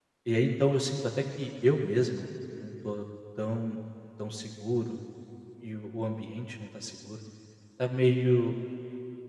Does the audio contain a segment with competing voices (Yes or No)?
No